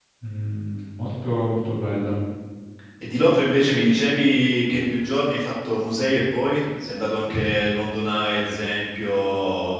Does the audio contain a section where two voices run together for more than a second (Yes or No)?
No